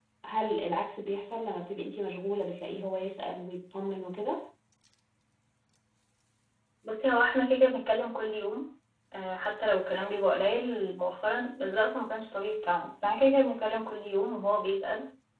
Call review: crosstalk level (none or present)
none